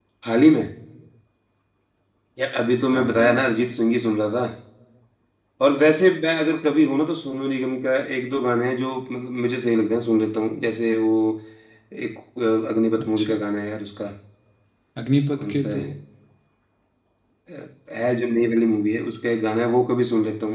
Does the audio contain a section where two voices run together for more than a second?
No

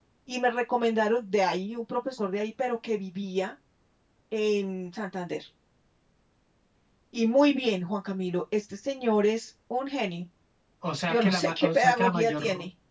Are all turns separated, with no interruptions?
No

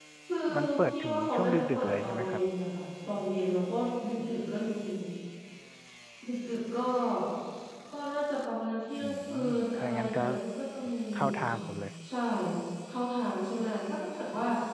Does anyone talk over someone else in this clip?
Yes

